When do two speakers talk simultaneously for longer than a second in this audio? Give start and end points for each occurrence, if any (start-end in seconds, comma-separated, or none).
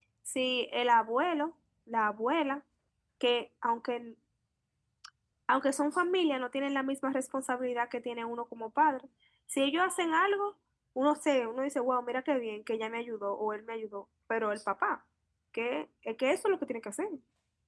none